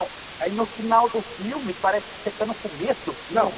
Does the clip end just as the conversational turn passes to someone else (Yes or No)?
Yes